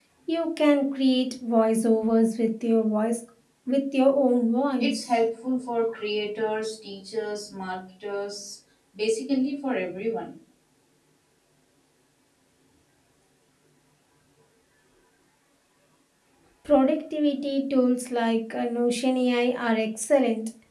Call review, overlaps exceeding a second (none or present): none